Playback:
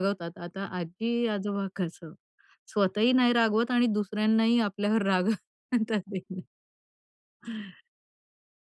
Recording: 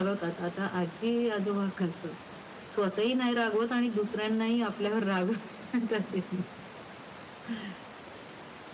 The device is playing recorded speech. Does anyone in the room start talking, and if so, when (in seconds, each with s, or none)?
none